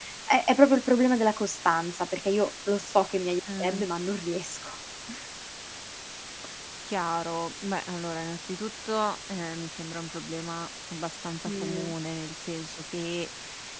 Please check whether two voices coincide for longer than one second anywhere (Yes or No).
No